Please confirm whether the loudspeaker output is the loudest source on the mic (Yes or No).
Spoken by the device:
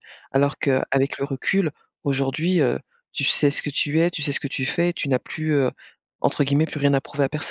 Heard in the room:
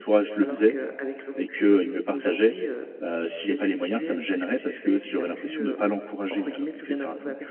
No